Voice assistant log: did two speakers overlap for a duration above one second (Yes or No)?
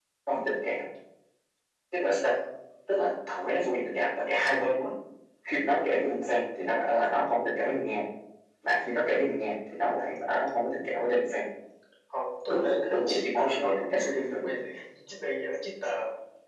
Yes